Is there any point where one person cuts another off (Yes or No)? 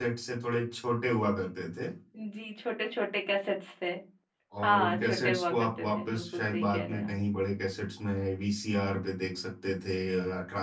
Yes